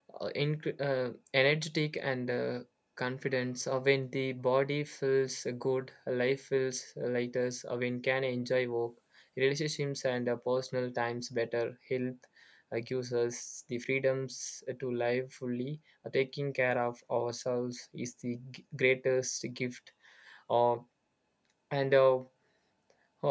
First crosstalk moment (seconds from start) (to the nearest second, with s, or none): none